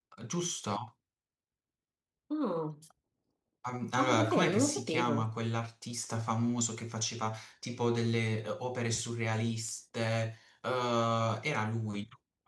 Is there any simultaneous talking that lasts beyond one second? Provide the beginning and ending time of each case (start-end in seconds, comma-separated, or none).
4.0-5.3